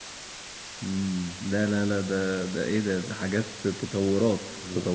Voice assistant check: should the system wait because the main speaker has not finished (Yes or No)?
No